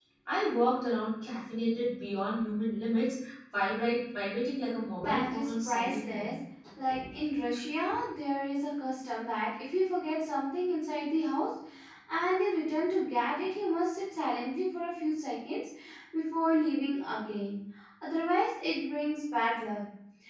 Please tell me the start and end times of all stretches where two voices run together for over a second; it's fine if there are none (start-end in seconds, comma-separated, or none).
5.0-6.3